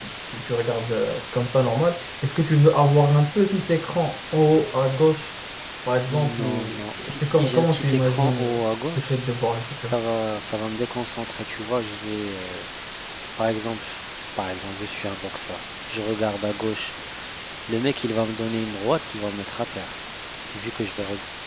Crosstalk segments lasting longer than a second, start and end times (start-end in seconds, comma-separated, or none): 6.1-8.6